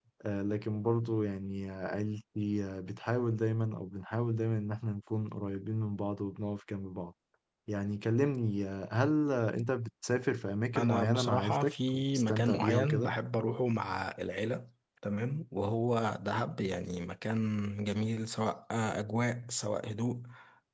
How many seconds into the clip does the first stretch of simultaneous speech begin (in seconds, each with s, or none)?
10.8 s